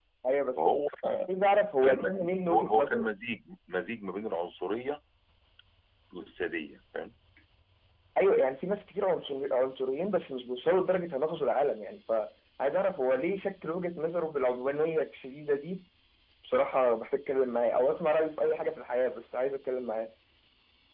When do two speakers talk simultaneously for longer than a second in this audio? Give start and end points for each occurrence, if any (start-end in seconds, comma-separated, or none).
1.8-3.1